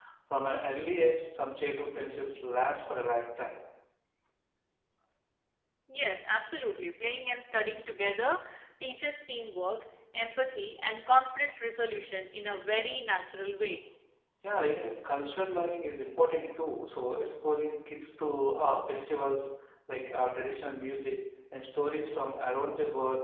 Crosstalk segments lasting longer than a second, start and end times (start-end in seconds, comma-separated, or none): none